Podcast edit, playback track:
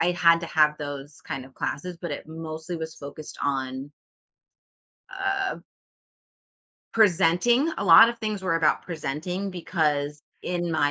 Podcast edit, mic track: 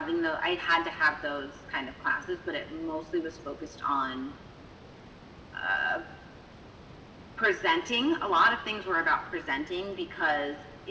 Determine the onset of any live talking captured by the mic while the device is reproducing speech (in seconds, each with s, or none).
none